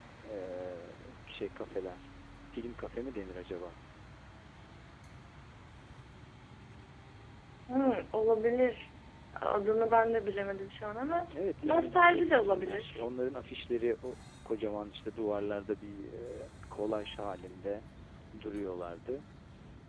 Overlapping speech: Yes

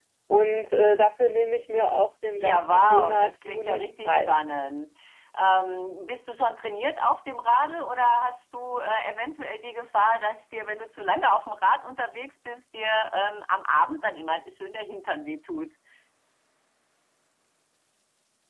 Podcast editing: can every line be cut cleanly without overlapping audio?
No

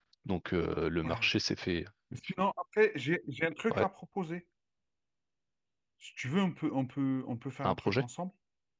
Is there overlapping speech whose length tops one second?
No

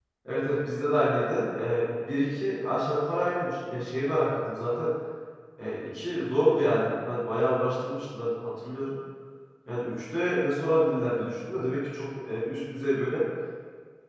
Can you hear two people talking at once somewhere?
No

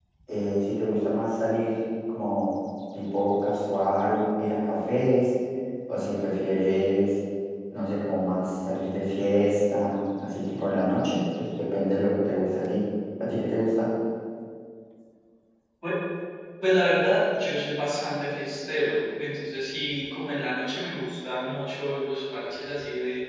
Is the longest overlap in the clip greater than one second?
No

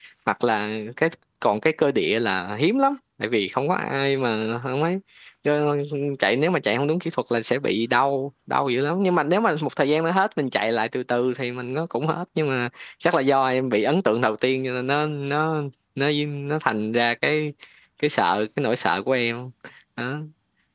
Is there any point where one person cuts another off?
No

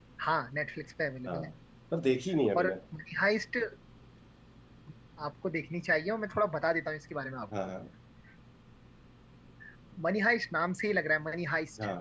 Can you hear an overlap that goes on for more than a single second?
No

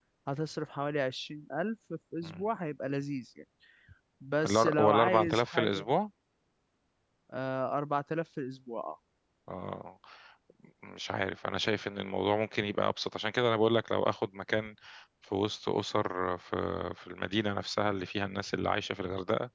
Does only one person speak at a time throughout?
No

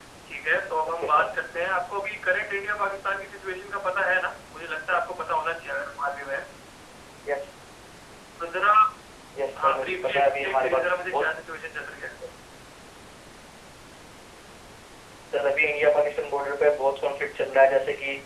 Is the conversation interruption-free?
No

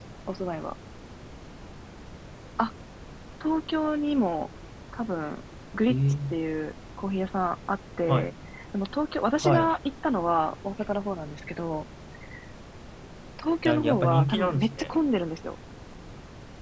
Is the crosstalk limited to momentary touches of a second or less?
No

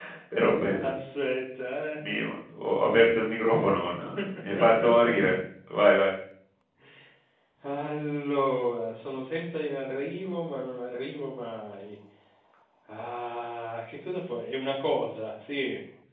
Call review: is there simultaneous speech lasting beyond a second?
No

